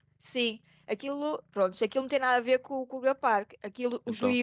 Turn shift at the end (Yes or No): No